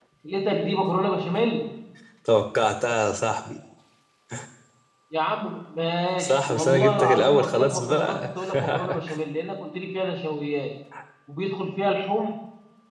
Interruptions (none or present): present